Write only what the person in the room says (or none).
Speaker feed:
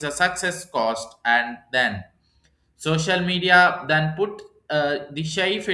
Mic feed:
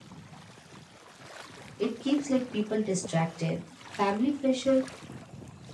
it keeps like people distracted family pressure